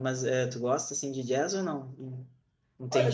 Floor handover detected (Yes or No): Yes